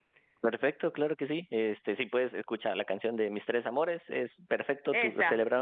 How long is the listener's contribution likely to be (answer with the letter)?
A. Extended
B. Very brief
B